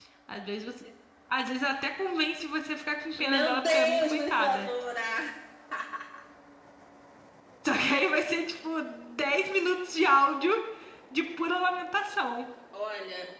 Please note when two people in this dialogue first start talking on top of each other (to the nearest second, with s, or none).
3 s